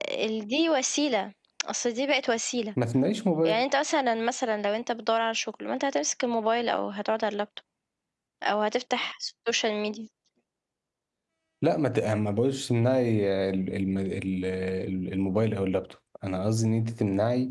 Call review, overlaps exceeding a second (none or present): none